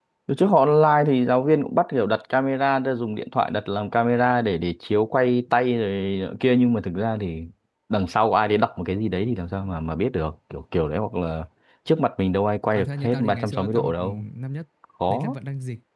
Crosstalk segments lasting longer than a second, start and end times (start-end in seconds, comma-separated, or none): 12.8-14.0